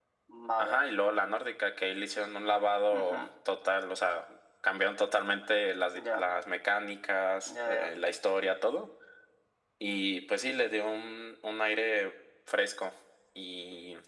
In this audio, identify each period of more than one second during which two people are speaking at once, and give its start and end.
none

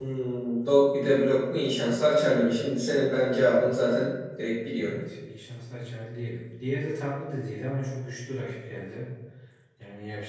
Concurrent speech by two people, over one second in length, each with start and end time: none

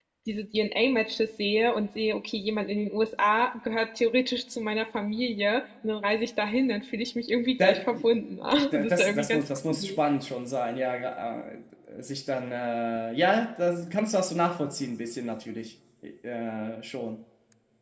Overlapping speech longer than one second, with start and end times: 8.7-10.0

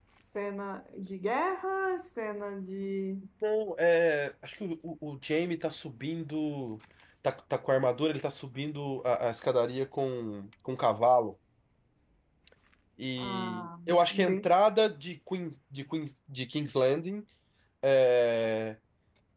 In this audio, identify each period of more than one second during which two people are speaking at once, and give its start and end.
13.2-14.5

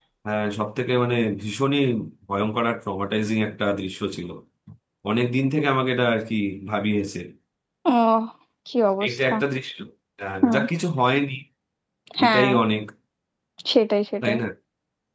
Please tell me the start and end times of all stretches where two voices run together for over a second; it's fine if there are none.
none

